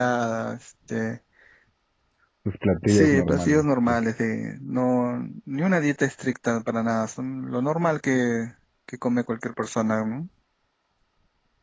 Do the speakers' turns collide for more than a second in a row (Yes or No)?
Yes